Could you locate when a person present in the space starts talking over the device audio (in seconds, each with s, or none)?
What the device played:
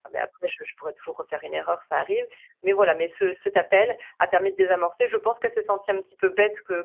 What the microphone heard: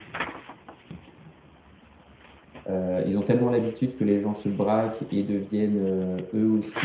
2.7 s